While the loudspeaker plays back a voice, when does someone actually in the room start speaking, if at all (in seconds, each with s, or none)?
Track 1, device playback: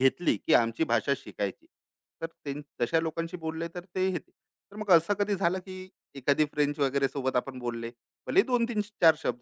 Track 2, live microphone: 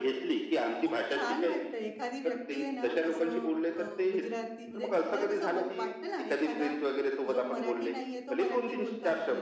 0.8 s